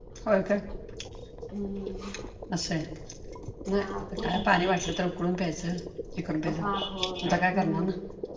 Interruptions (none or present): present